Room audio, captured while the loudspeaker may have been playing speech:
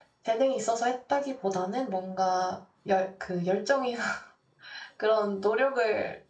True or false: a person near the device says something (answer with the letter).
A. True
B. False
A